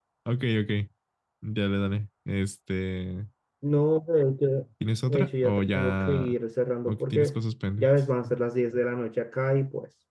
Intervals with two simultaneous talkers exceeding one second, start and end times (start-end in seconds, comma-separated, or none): 5.0-6.4